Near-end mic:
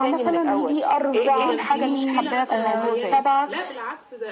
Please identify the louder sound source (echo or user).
echo